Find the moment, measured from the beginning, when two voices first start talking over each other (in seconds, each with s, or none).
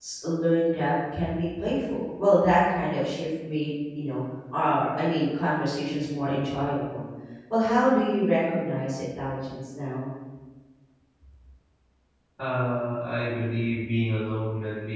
none